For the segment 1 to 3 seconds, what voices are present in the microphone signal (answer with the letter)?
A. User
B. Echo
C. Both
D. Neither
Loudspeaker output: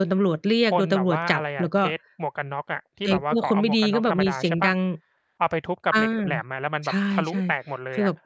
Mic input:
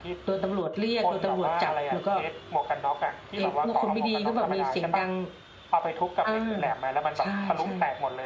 B